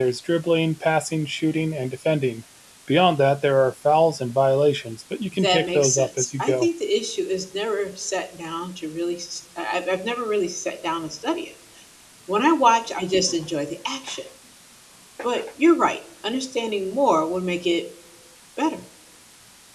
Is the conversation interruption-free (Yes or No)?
No